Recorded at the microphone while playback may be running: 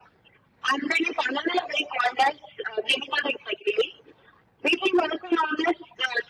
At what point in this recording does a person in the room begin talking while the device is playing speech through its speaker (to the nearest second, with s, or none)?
none